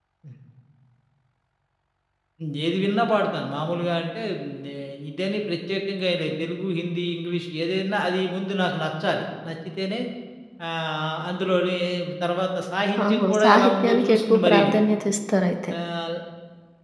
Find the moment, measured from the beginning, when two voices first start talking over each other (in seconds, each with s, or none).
13.1 s